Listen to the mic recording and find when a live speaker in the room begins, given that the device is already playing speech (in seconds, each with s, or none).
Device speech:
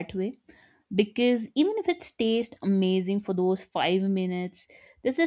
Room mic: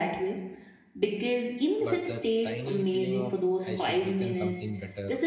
1.8 s